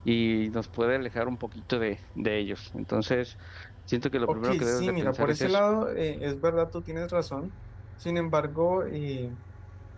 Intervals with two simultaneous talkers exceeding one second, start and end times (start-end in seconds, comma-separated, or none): 4.3-5.6